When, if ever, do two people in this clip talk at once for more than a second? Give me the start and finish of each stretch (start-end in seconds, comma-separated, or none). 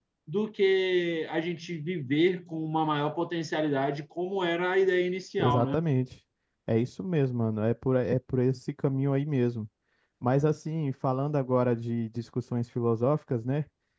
none